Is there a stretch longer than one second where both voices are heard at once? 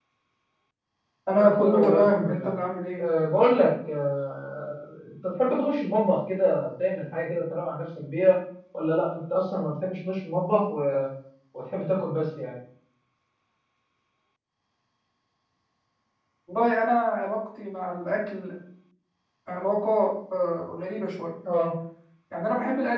Yes, from 1.3 s

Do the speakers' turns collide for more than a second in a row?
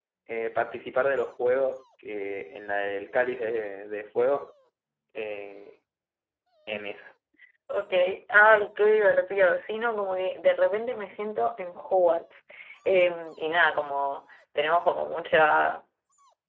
No

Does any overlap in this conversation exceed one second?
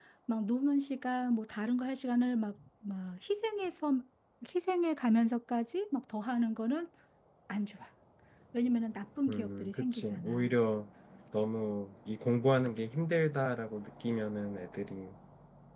Yes, from 9.3 s

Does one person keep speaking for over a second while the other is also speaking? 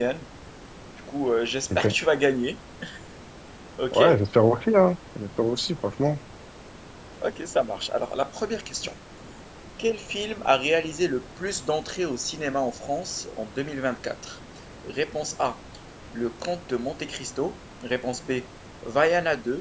No

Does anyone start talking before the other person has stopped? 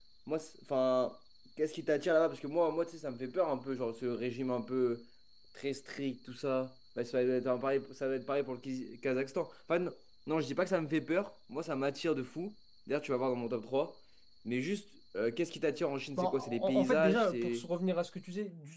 Yes, from 16.2 s

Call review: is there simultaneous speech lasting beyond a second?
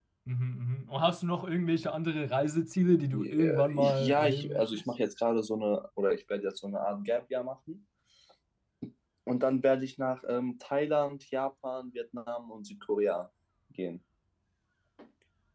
Yes, from 3.1 s

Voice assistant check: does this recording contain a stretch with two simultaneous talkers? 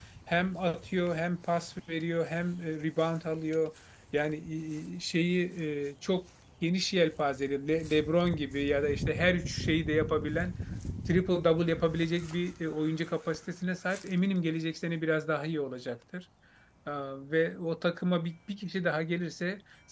No

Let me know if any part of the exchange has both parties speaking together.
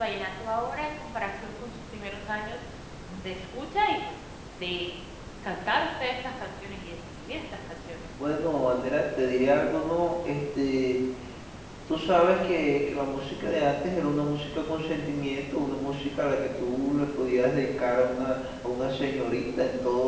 No

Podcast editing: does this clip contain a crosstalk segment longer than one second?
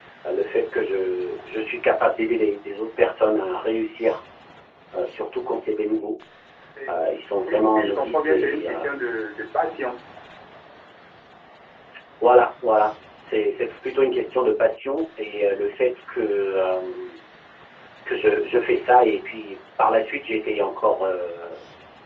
Yes, from 7.5 s

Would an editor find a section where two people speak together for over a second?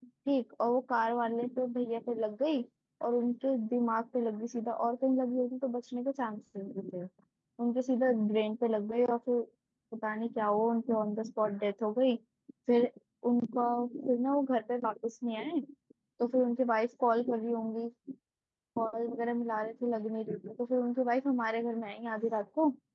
No

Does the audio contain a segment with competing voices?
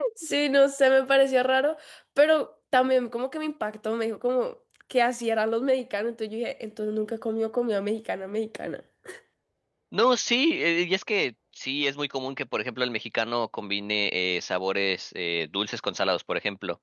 No

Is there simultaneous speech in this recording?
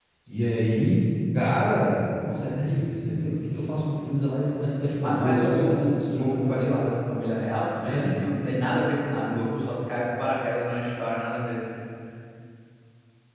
Yes, from 5.0 s

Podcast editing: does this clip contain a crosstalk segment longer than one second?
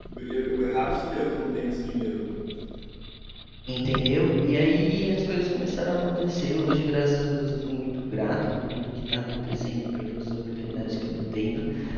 No

